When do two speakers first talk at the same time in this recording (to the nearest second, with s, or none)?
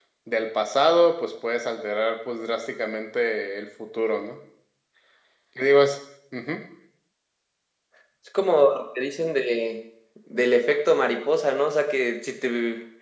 none